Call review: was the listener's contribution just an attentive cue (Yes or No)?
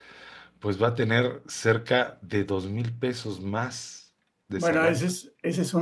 No